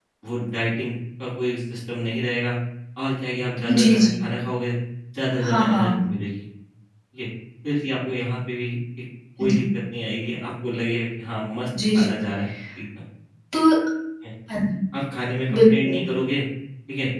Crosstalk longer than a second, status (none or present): none